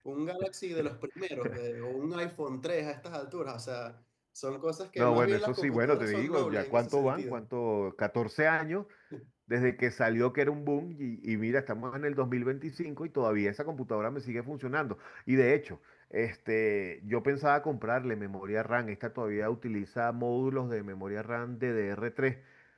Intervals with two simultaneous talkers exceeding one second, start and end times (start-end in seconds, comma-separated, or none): 5.0-7.4